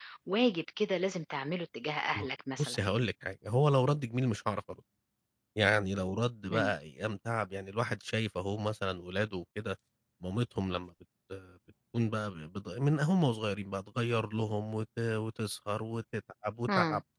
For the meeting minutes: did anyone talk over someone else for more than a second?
No

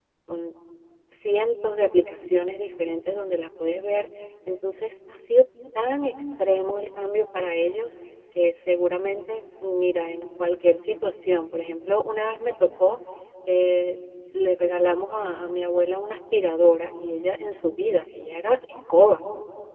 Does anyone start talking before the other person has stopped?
No

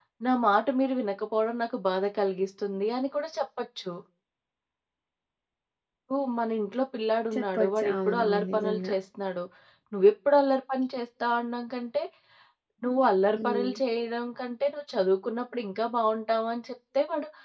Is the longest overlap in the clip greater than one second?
Yes, from 7.3 s

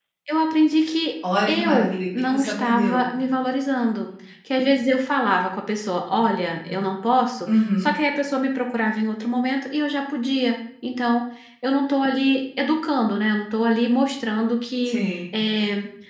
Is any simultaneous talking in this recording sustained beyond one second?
Yes, from 1.5 s

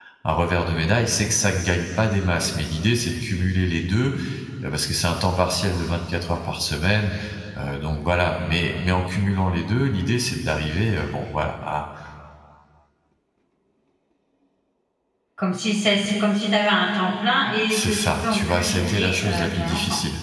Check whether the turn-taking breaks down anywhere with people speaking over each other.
Yes, from 17.7 s

